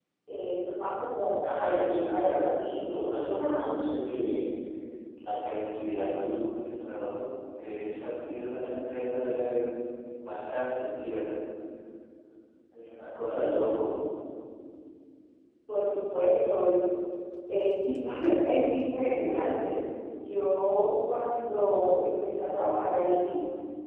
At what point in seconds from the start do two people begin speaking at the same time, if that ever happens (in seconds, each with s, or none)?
1.4 s